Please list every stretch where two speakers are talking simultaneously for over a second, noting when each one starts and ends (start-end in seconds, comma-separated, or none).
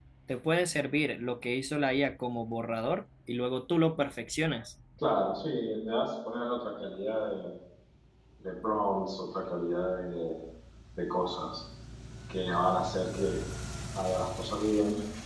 none